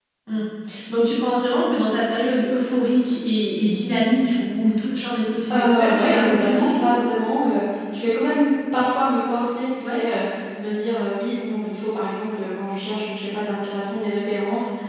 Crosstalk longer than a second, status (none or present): present